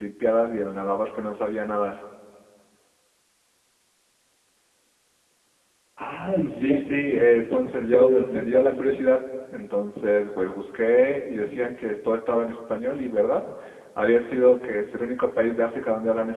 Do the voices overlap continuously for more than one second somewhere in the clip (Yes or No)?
Yes